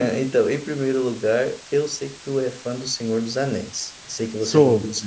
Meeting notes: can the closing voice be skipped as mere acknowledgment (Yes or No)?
Yes